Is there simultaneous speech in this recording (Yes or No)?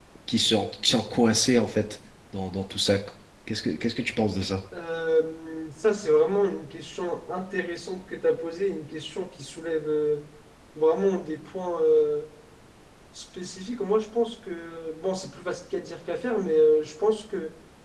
No